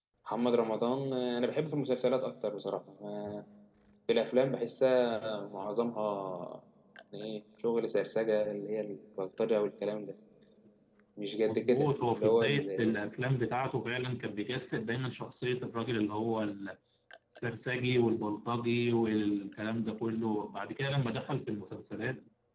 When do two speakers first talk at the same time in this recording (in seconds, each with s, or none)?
11.4 s